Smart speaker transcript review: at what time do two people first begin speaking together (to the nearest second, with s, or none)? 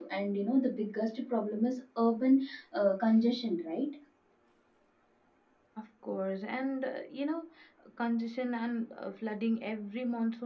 none